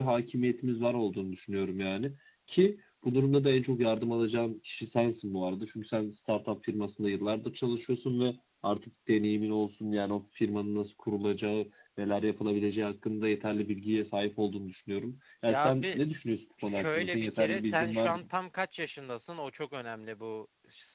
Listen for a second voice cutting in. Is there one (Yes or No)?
Yes